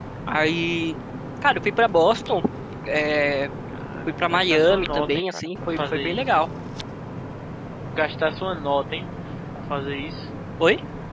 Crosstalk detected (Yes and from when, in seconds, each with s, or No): Yes, from 4.2 s